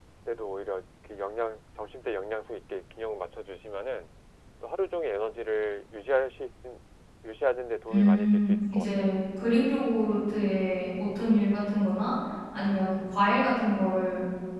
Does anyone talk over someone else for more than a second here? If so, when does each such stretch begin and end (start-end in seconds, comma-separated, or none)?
7.9-9.1